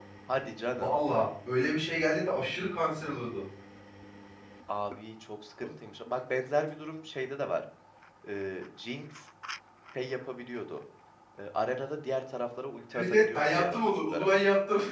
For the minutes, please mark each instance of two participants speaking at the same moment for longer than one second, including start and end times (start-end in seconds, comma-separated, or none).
12.9-14.3